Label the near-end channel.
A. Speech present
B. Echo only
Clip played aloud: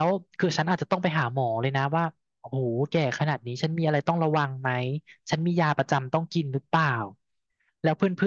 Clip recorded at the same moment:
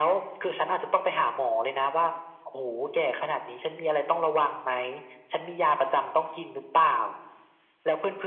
B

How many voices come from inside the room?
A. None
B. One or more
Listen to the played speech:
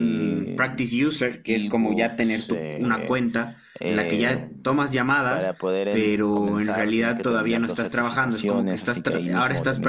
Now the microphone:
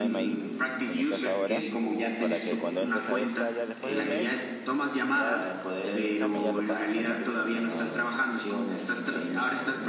B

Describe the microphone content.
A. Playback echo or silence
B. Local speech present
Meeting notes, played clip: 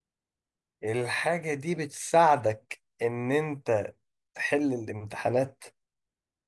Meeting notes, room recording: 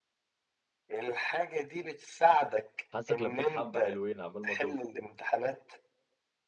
B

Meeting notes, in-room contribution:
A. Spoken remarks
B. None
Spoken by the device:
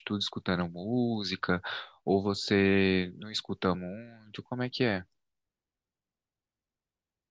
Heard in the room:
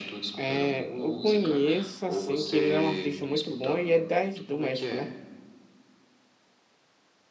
A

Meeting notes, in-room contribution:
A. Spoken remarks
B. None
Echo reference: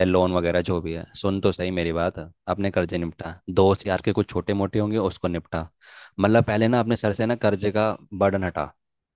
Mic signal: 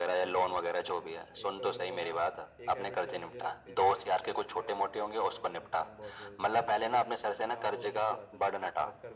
A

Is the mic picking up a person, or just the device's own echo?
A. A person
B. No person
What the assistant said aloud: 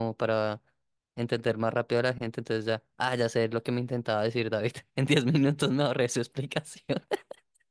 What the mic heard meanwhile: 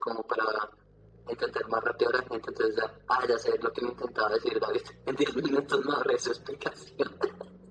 B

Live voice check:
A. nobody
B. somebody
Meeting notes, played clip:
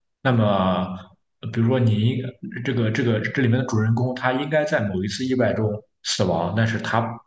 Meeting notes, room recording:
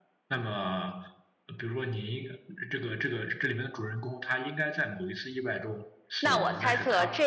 B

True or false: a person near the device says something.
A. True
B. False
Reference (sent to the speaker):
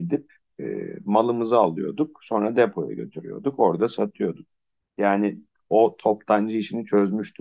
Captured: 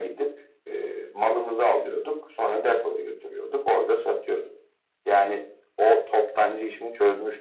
B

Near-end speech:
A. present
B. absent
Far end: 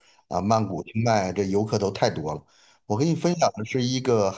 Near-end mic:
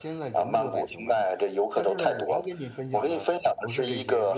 A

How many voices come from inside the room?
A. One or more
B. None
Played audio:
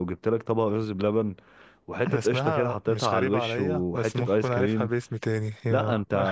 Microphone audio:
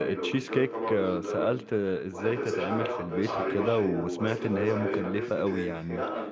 A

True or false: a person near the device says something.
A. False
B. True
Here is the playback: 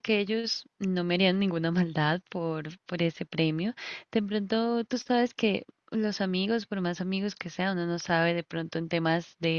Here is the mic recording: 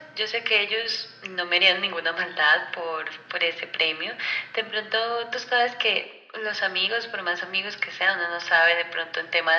A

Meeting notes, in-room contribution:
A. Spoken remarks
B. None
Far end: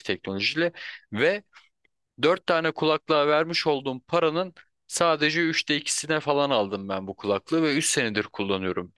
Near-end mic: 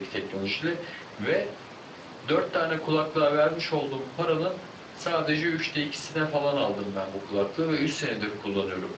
B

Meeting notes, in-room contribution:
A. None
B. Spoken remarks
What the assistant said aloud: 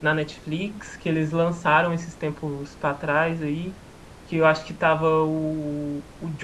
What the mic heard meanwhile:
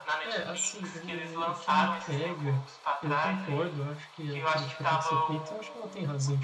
B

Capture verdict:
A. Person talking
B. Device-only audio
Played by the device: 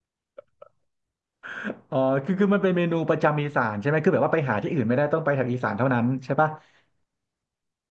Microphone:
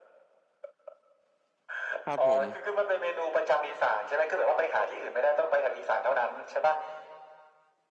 A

